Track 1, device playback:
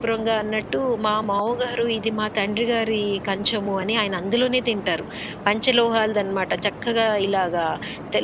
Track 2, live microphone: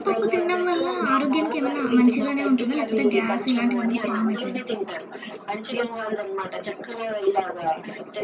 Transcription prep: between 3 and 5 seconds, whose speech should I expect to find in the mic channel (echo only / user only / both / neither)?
both